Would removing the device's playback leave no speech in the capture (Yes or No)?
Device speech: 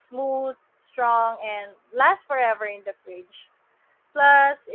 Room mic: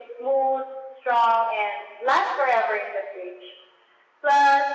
Yes